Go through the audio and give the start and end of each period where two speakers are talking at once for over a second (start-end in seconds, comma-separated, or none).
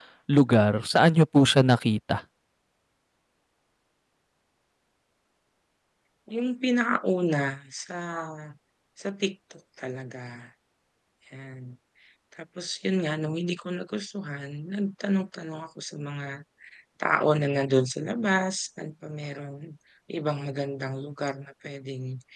none